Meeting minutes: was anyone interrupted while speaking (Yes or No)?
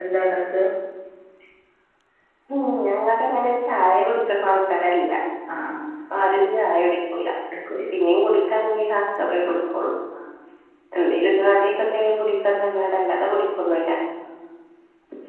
No